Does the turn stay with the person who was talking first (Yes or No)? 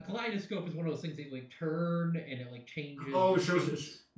No